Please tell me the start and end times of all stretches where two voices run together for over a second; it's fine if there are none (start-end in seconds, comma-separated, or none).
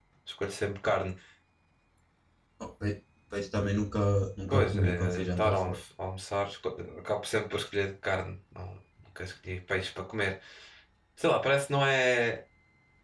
4.5-5.8